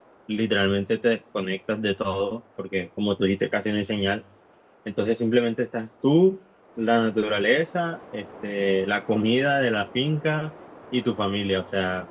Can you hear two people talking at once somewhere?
No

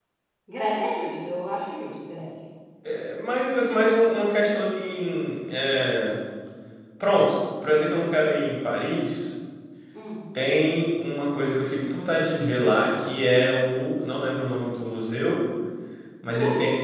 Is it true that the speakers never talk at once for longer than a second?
Yes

